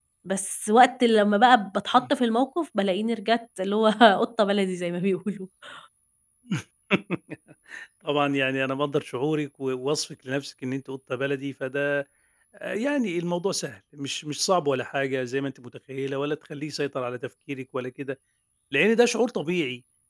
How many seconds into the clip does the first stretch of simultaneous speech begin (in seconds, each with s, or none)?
none